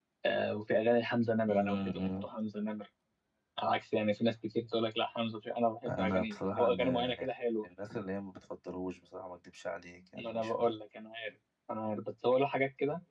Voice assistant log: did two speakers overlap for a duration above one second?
Yes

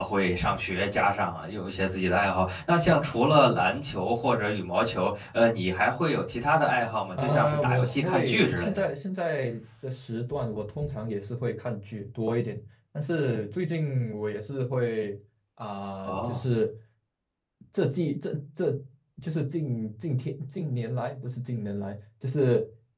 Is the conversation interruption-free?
No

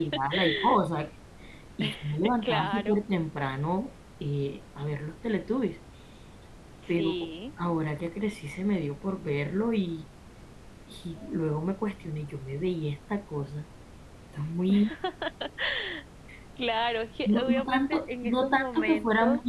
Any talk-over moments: Yes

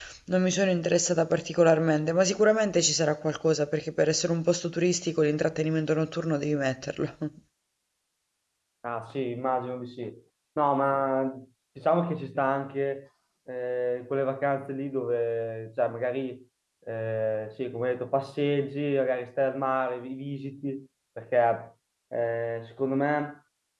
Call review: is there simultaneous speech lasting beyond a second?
No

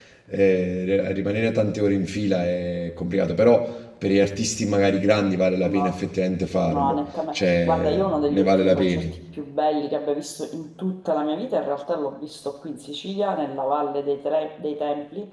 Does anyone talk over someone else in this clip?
Yes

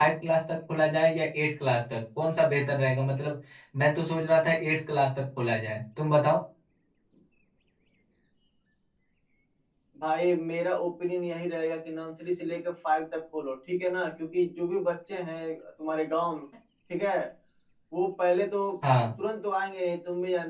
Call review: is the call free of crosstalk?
Yes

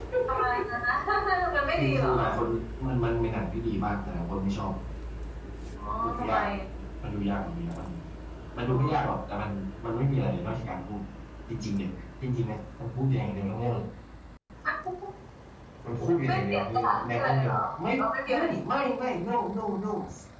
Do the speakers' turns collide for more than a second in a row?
Yes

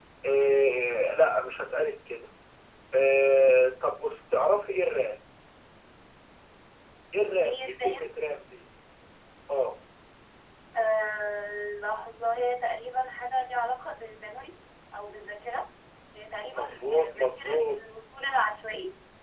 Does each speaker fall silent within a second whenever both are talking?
No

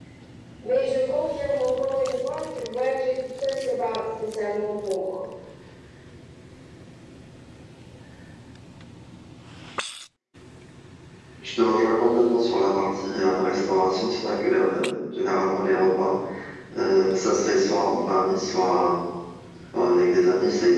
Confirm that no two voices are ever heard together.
Yes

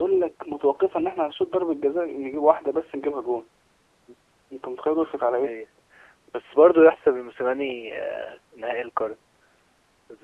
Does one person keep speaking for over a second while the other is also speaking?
No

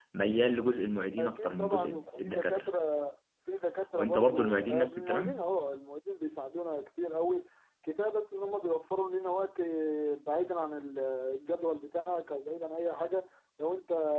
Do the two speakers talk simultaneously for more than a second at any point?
Yes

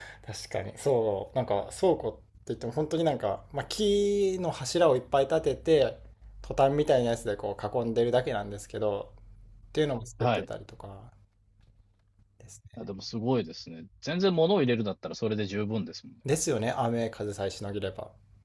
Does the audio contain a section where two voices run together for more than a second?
No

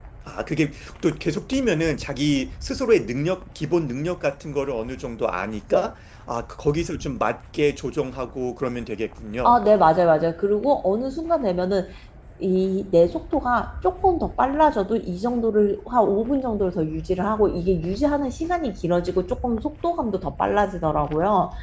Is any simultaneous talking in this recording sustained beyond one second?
No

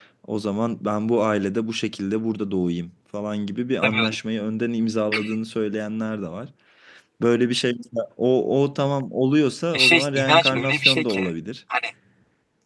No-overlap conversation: No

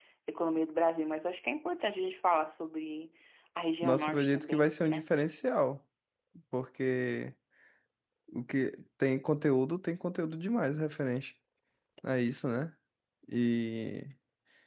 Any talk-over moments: Yes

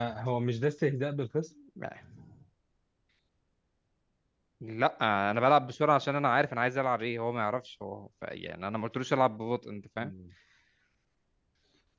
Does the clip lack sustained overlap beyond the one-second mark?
Yes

